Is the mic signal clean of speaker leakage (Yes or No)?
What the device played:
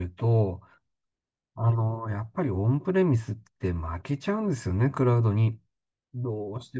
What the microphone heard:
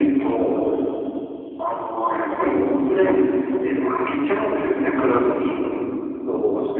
No